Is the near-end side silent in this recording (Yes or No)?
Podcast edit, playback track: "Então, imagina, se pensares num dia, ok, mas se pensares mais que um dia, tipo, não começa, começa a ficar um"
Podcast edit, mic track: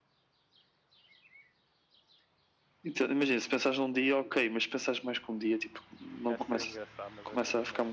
No